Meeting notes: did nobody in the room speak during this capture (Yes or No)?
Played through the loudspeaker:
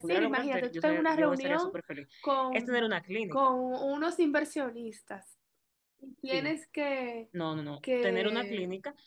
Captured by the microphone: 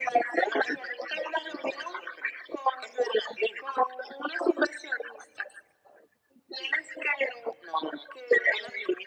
Yes